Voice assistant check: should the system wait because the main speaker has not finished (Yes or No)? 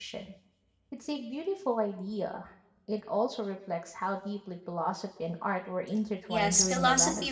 No